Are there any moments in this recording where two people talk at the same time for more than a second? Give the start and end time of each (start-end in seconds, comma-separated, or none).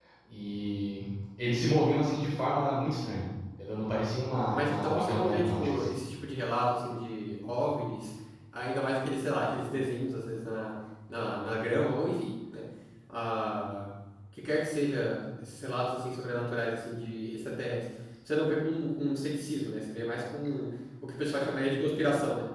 4.5-6.0